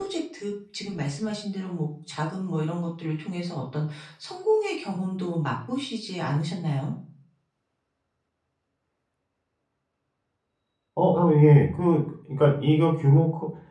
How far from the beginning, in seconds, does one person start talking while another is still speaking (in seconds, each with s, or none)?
none